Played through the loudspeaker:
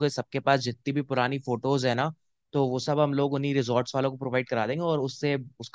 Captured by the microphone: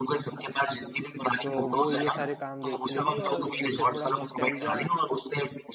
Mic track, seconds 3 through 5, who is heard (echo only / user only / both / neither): both